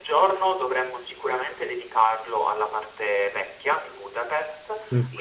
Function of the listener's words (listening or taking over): listening